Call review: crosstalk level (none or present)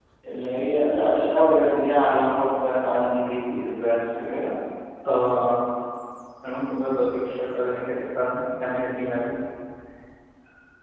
none